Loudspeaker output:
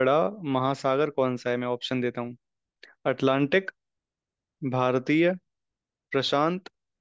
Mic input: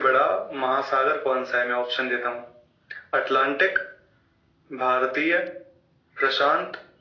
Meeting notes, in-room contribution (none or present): none